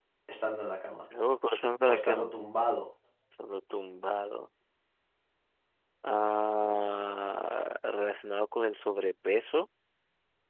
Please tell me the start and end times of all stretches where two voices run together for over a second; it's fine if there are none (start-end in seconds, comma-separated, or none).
none